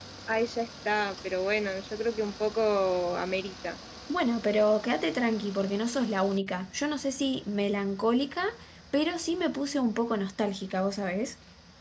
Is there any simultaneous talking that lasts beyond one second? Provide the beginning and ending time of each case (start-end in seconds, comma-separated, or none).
none